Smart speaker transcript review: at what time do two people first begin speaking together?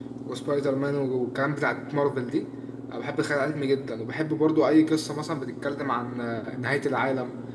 none

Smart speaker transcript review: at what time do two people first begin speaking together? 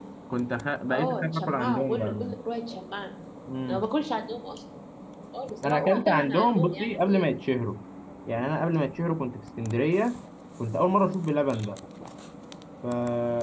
1 s

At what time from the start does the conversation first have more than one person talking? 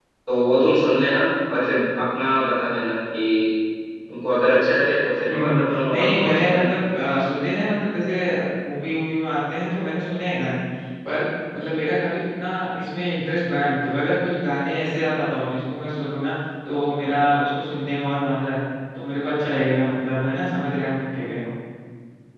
5 s

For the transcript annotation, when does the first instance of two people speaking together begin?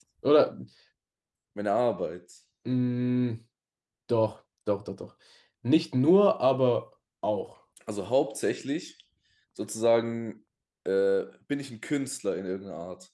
none

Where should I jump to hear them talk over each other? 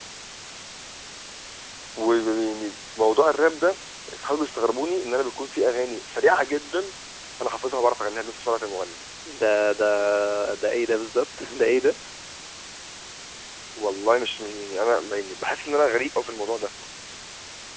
none

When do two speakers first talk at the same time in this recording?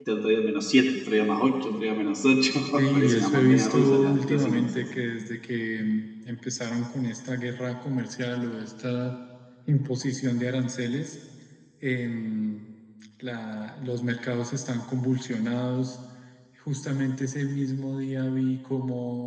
3 s

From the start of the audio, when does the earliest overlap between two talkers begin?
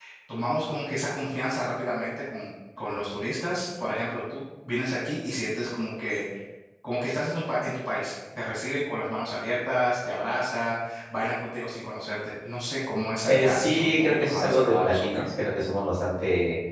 13 s

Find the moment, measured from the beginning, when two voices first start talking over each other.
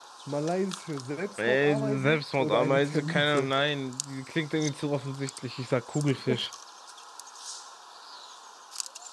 1 s

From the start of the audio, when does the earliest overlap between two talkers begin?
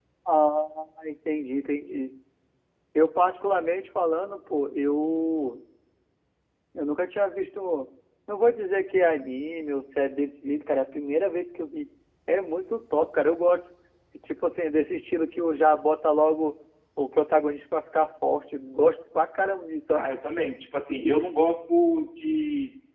none

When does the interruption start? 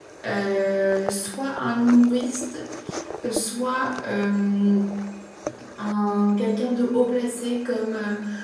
none

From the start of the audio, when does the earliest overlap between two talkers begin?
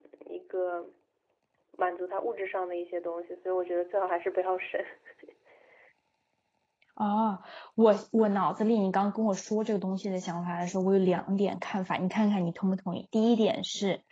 none

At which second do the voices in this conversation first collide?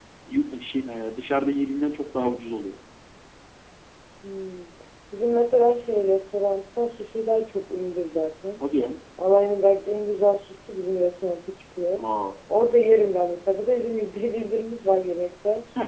none

